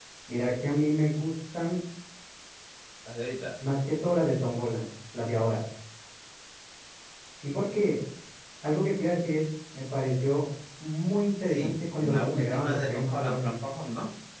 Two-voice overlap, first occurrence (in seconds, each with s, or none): 11.4 s